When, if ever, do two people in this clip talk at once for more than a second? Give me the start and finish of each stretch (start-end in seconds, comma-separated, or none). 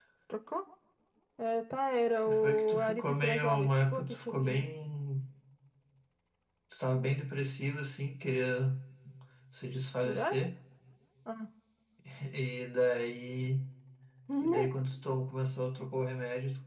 2.3-4.6